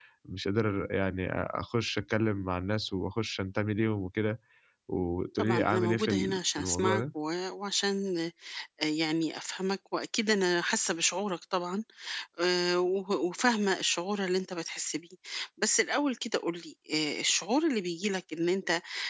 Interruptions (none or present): present